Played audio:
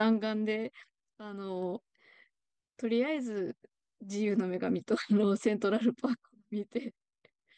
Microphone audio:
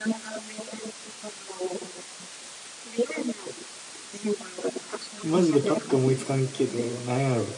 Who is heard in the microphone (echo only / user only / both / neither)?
both